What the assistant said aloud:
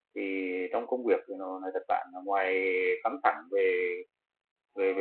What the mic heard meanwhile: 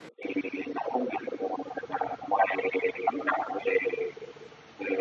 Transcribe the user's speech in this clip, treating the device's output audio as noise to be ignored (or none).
none